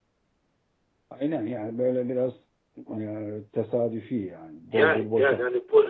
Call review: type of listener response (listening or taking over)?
taking over